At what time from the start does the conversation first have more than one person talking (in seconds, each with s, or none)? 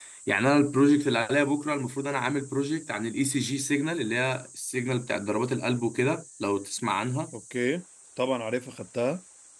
none